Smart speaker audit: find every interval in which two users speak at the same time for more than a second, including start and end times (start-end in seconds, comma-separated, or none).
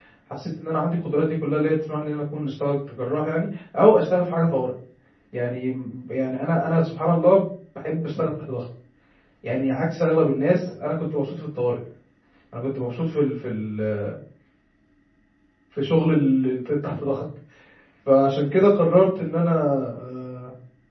none